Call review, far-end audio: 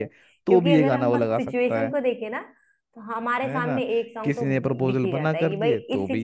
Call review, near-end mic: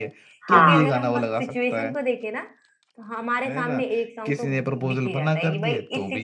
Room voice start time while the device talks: 0.5 s

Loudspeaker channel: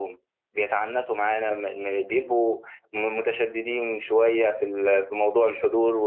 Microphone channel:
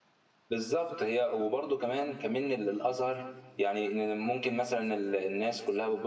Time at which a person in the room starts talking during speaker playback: 0.5 s

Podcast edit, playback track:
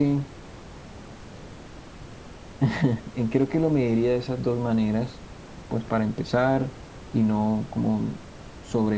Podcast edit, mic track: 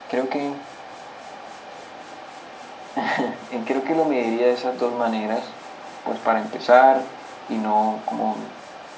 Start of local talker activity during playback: none

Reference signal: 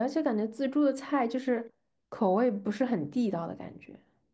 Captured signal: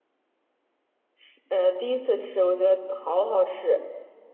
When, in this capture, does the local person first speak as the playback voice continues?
1.2 s

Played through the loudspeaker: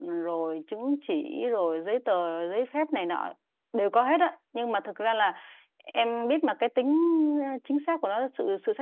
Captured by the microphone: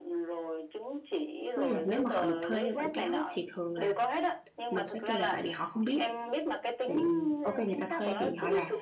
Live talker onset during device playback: 1.5 s

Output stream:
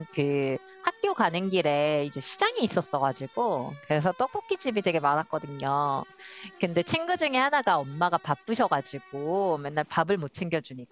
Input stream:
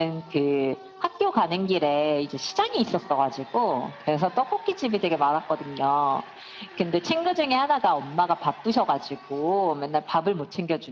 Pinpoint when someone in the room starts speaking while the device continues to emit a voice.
none

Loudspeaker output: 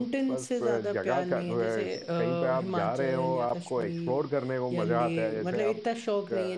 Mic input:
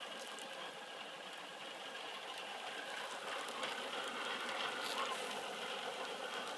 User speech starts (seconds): none

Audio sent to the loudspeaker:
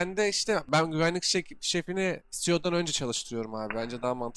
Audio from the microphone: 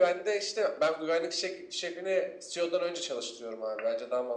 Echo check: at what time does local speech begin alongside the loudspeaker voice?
none

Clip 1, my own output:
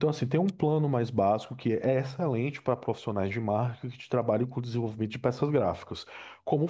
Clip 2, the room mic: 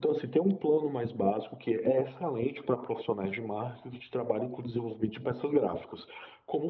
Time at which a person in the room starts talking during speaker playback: none

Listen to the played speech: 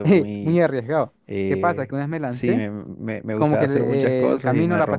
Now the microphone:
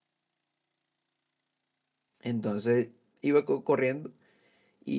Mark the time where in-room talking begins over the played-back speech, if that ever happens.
2.2 s

